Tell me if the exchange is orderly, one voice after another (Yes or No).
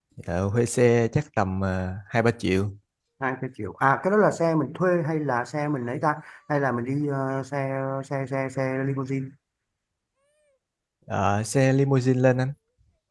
Yes